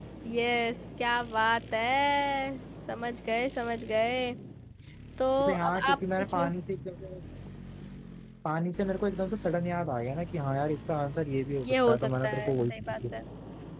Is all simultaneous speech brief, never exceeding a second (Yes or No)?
No